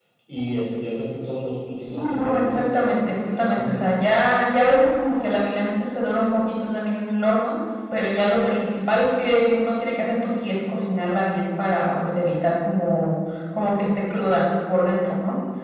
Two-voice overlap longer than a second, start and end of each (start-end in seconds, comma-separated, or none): 1.8-4.0